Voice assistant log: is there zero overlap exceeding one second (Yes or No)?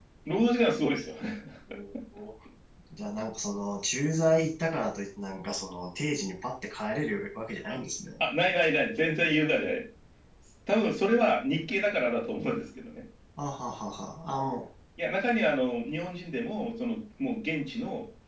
Yes